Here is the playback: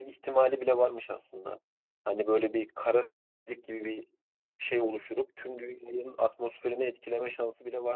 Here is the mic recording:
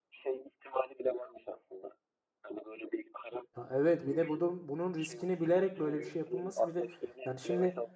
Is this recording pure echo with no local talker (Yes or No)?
No